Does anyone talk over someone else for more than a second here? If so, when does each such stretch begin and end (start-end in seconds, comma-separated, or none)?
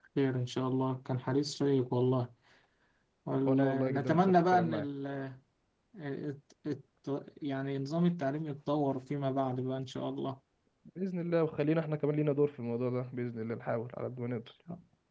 3.4-4.9